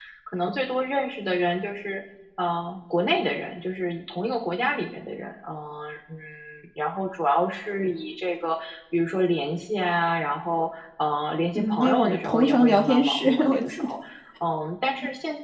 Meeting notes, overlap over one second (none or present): present